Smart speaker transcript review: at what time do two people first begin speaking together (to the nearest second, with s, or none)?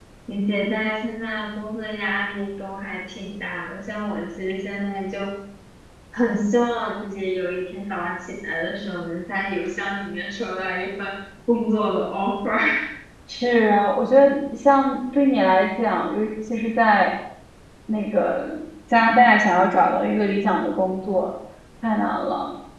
none